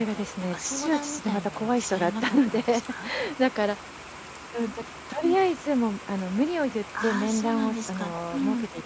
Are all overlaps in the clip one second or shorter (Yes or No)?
No